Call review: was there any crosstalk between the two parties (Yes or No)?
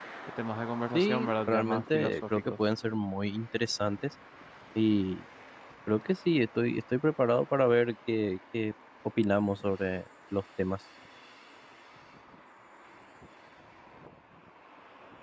Yes